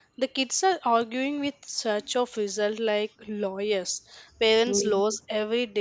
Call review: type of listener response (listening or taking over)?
listening